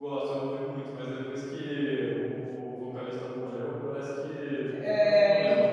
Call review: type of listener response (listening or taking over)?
taking over